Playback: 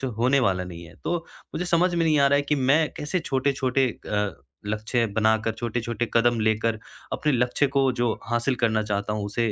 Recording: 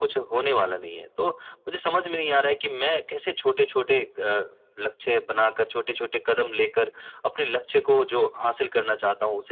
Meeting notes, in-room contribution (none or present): none